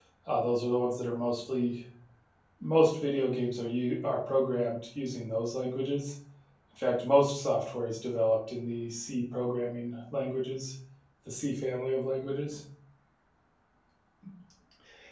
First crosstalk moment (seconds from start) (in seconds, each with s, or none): none